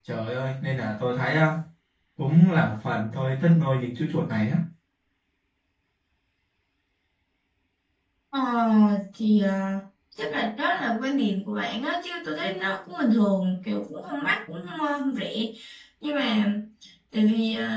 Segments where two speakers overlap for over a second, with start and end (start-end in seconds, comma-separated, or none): none